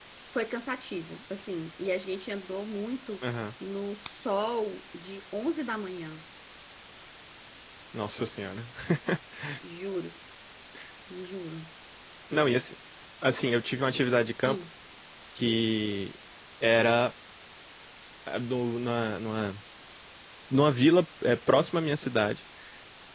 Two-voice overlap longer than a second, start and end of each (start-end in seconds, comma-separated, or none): none